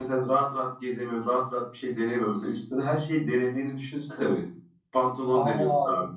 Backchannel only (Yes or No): Yes